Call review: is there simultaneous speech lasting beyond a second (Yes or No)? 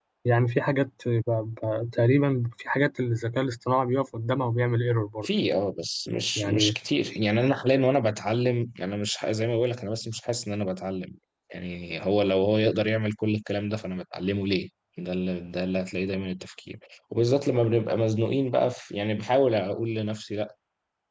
No